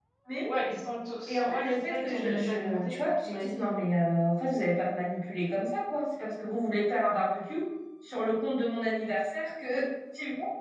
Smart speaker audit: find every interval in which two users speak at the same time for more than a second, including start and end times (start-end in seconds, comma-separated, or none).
1.3-3.7